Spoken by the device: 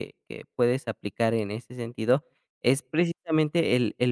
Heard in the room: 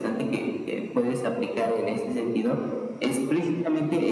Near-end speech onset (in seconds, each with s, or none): none